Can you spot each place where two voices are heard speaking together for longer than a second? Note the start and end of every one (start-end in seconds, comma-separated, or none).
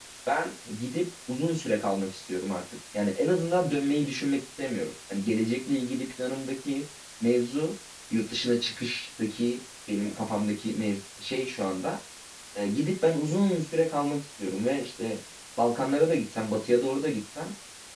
none